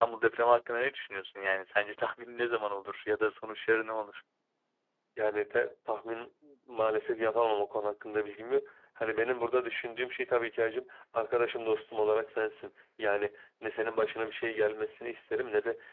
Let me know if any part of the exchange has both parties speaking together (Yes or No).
No